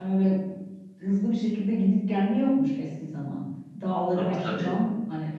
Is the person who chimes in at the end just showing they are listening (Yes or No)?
Yes